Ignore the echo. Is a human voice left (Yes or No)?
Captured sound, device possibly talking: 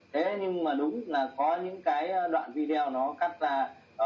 No